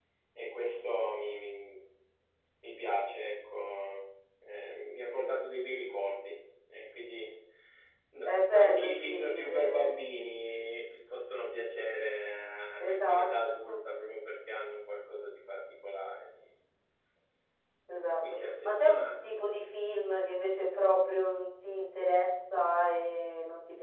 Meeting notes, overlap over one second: present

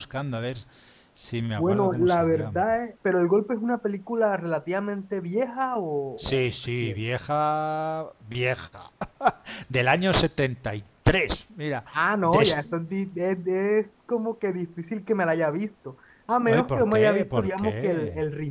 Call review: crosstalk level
present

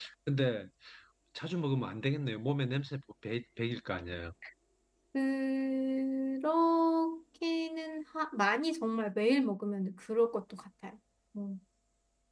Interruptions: none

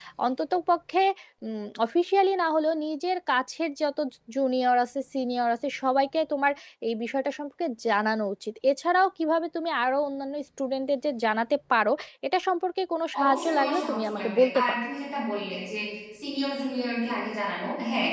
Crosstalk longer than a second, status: present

